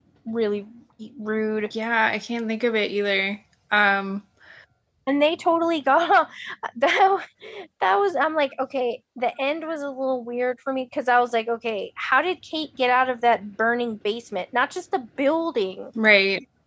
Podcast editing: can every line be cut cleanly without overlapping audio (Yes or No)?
Yes